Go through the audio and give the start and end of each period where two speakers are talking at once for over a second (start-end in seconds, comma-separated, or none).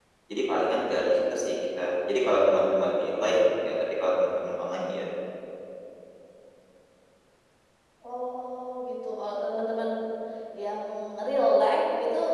none